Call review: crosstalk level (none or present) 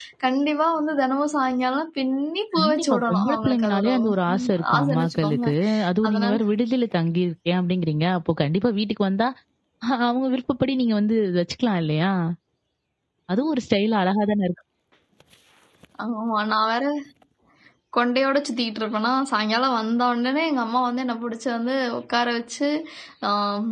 present